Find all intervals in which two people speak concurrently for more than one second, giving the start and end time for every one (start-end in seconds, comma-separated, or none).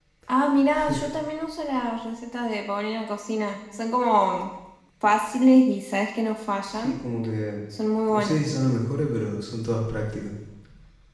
none